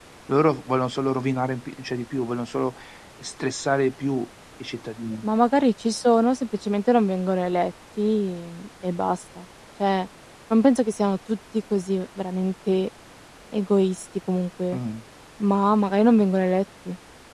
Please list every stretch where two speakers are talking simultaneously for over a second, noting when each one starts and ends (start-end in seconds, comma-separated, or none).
none